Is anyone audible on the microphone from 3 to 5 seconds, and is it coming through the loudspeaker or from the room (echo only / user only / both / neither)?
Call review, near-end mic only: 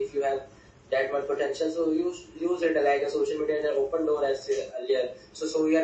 echo only